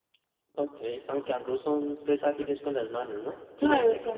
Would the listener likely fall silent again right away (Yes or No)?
No